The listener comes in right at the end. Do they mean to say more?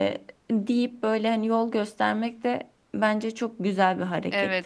Yes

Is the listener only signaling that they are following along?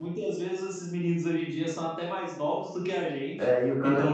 No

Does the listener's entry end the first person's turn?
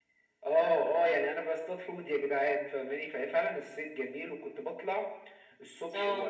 No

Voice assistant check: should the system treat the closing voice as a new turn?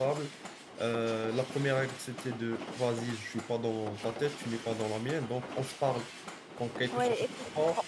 Yes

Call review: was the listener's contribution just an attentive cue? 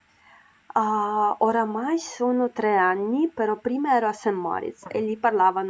Yes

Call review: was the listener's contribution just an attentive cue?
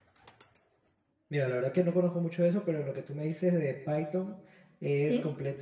Yes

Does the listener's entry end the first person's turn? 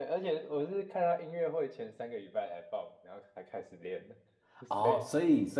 Yes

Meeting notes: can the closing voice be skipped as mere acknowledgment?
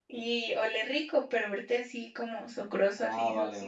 No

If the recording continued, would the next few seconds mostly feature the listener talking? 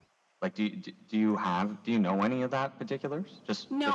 Yes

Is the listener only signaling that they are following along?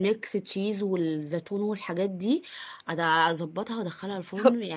No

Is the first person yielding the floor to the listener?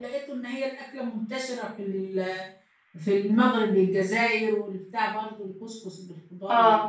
No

